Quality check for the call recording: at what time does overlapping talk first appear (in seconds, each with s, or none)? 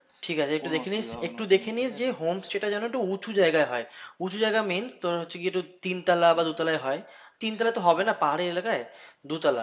0.6 s